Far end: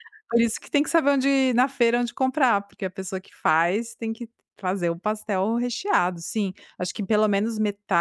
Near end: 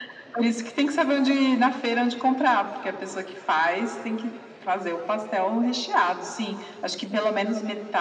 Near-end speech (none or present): none